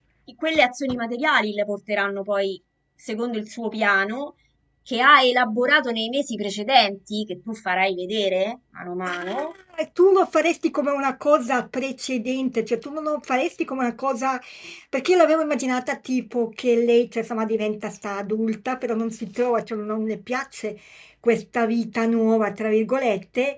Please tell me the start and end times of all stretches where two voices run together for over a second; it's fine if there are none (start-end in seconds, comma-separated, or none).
none